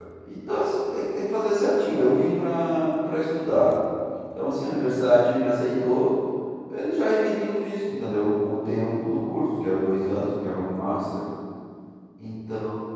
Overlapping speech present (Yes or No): No